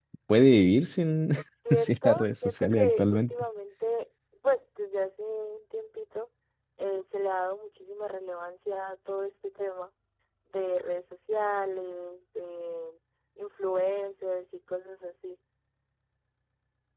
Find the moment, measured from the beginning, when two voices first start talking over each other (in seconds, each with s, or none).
1.7 s